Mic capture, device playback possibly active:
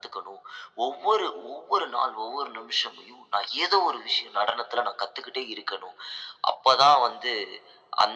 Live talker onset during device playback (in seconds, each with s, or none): none